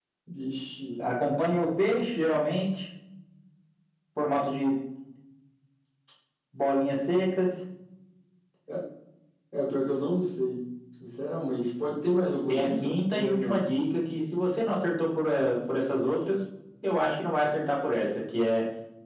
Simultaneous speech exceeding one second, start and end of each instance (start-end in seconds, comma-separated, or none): 12.5-13.7